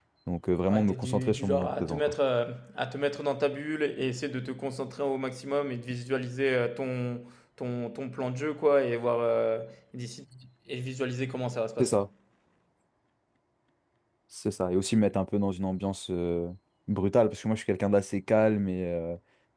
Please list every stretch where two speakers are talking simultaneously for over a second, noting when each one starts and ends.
0.7-2.1

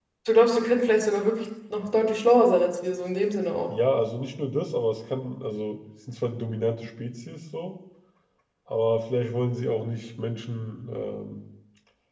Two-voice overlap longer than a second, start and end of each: none

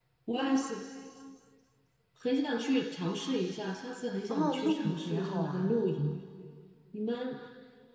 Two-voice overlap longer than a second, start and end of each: 4.3-5.9

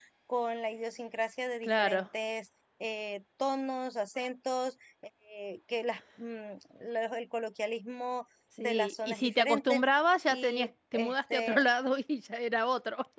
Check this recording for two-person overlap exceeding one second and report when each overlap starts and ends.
8.6-9.8, 10.3-11.6

